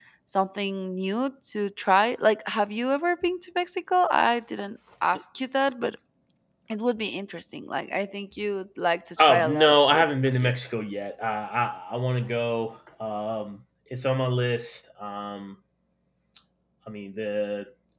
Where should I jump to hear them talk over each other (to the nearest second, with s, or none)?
9 s